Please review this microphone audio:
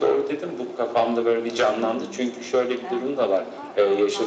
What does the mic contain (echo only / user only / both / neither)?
both